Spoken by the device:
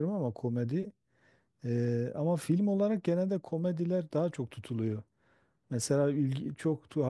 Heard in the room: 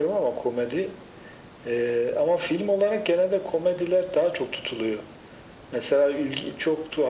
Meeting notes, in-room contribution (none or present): none